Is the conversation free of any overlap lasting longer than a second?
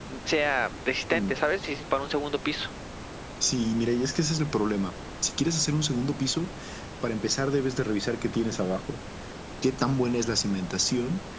Yes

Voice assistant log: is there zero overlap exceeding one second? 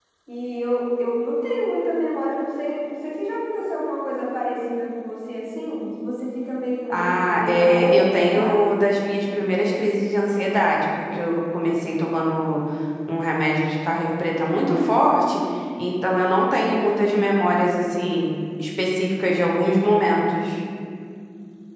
No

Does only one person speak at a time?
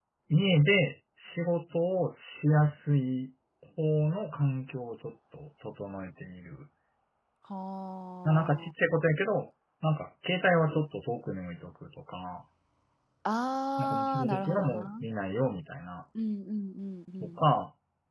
No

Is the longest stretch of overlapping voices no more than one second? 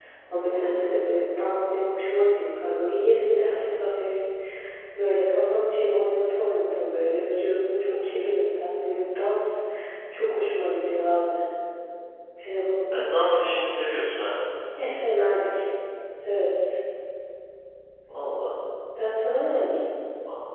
Yes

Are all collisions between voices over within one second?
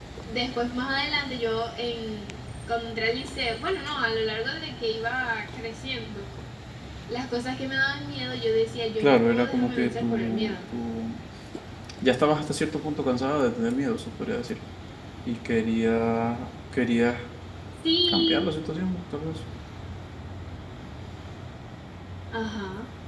No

